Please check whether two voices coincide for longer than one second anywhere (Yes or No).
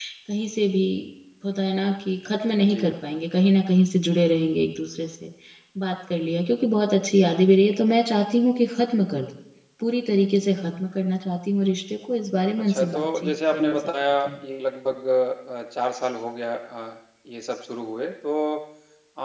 Yes